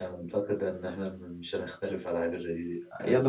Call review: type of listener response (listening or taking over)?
taking over